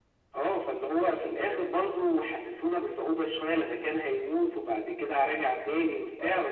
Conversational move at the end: taking over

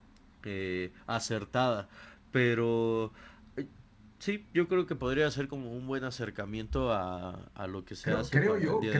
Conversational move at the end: taking over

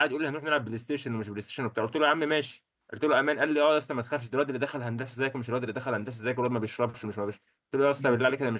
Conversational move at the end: listening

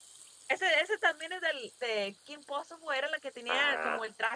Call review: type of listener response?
listening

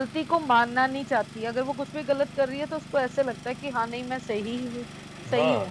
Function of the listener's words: taking over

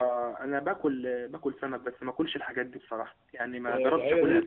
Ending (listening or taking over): taking over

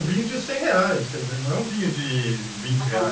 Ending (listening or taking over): taking over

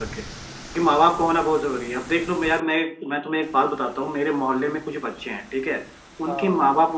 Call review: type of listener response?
listening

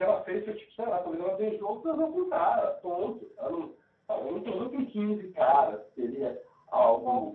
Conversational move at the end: listening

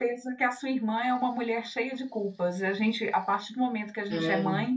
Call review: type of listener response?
listening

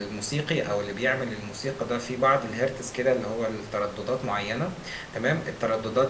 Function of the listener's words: listening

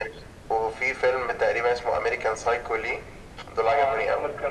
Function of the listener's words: taking over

